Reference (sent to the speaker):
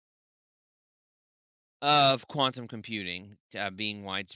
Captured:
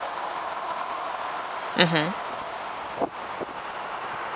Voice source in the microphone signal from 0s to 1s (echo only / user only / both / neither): neither